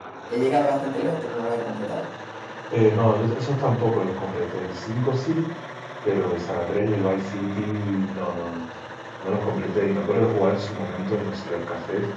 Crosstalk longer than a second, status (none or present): none